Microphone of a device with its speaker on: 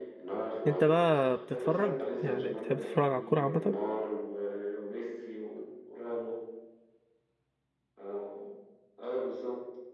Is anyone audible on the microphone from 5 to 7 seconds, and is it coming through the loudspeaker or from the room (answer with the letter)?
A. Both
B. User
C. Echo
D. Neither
C